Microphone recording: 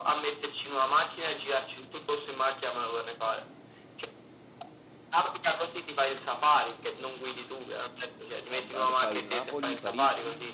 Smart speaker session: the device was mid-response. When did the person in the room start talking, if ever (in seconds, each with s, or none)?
8.5 s